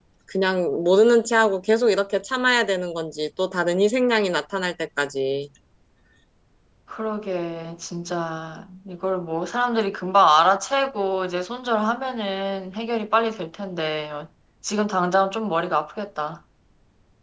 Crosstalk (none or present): none